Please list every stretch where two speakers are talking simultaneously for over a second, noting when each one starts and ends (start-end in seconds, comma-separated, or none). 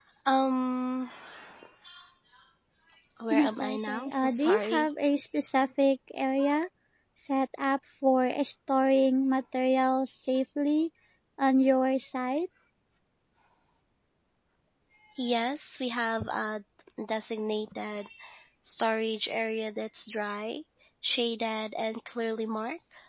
3.3-4.9